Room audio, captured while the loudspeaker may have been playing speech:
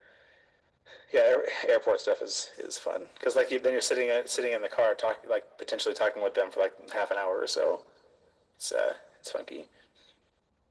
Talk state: echo only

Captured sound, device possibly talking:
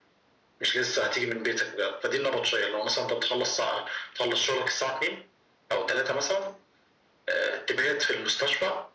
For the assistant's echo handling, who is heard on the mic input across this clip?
echo only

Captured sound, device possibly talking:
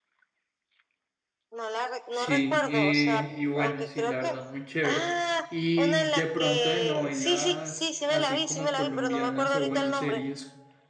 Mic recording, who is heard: both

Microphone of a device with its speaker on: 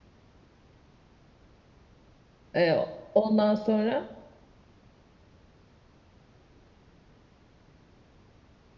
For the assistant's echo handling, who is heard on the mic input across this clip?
user only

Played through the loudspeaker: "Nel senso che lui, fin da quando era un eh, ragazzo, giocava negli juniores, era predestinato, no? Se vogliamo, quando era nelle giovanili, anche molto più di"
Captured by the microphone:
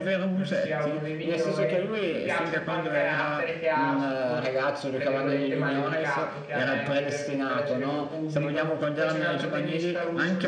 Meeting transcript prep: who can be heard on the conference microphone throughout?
both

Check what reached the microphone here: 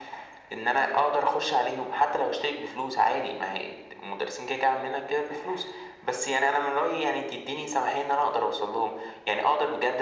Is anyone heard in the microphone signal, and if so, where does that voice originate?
echo only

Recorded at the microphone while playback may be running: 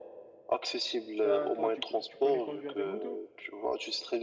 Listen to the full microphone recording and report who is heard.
both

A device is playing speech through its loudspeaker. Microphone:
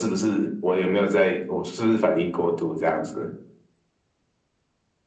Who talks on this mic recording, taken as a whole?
echo only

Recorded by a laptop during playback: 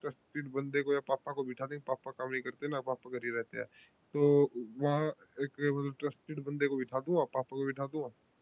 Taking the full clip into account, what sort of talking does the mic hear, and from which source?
user only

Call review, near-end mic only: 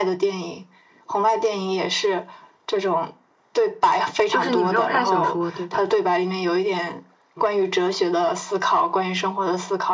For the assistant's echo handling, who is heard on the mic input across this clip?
both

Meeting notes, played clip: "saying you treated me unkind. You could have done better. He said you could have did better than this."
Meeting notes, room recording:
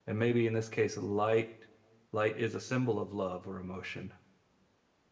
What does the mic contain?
user only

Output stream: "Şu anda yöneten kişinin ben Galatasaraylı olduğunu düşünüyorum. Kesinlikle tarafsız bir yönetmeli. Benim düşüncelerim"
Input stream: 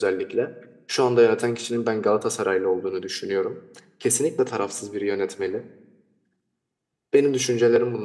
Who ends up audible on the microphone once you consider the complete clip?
echo only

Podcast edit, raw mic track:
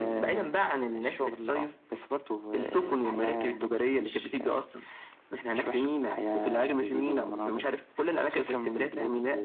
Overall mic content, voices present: echo only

